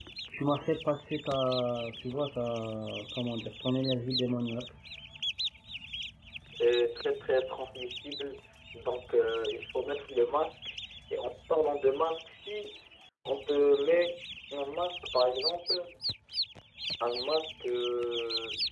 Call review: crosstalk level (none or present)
none